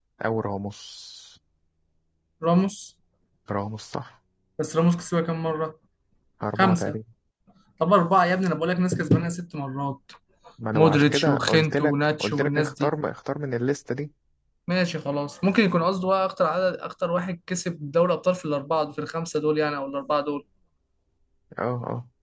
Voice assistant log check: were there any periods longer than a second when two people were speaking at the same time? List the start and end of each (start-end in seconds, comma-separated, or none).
10.7-12.9